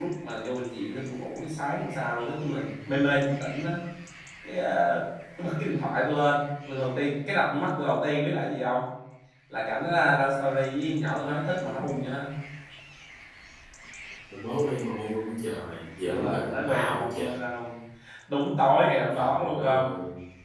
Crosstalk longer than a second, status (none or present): present